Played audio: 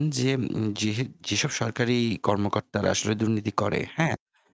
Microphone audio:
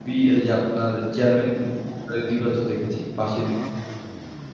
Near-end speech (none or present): present